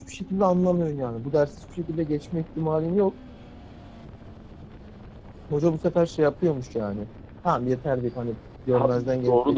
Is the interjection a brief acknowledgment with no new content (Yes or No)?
No